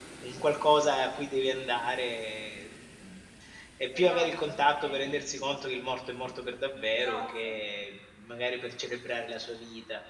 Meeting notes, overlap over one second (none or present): present